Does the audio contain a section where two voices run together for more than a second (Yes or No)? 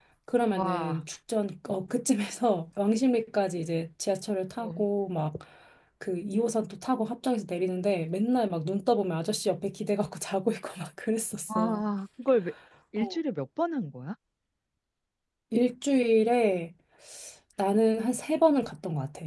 No